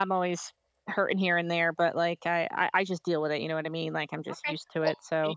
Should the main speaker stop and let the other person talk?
Yes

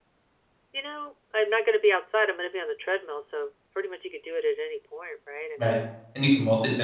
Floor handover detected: Yes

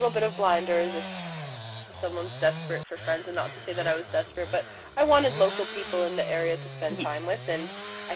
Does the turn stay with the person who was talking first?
Yes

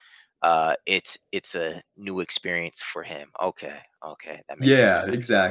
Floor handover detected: Yes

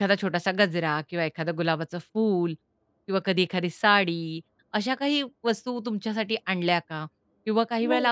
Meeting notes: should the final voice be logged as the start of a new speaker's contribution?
No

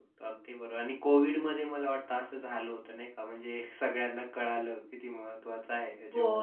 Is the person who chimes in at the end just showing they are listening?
No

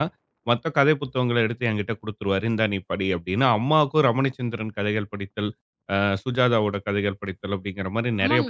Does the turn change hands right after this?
Yes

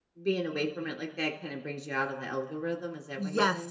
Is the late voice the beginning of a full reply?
Yes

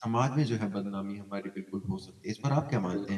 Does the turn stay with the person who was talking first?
No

